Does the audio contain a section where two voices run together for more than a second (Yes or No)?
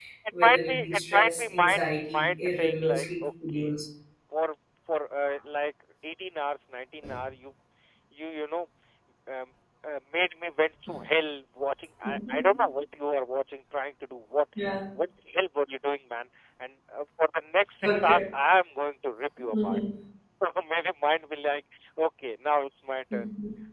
Yes